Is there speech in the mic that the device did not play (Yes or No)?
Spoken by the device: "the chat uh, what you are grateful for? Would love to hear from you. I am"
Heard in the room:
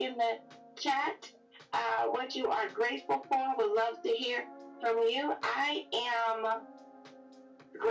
No